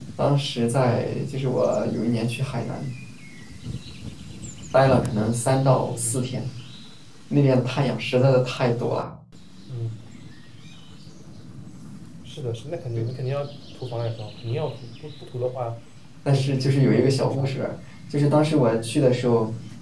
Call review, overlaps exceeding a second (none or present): present